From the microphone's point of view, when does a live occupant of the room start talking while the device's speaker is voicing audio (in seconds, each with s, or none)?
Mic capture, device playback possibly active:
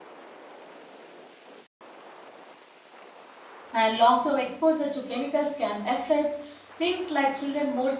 3.7 s